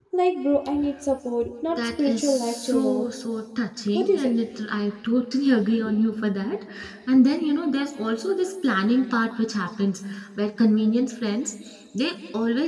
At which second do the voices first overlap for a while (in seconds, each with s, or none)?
1.8 s